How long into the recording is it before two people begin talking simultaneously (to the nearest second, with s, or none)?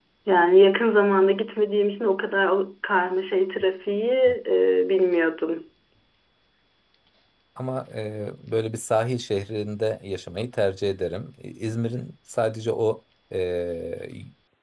none